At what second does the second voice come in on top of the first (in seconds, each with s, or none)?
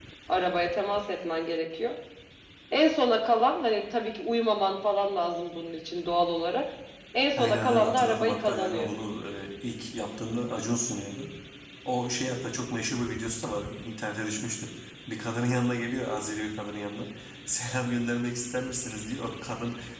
7.4 s